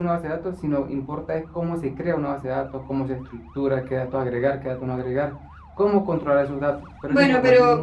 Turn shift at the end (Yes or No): Yes